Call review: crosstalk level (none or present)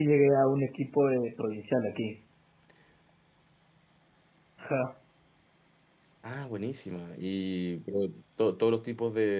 none